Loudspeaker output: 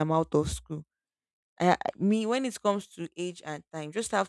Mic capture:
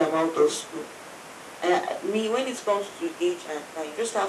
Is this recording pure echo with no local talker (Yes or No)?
Yes